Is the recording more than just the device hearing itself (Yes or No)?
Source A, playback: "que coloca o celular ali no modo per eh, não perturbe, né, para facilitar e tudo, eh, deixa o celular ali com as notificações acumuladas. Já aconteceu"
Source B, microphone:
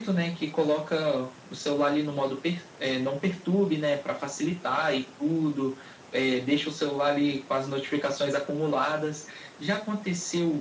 No